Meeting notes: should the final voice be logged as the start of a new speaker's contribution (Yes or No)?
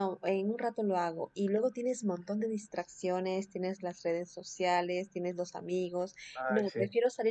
No